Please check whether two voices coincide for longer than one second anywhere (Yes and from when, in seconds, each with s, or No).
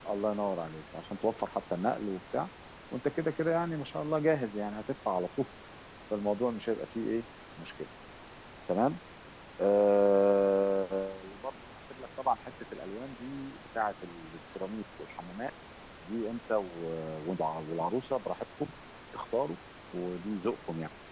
No